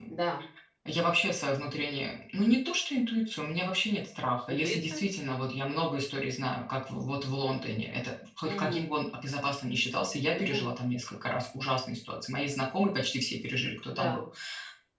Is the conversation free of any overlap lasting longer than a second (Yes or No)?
Yes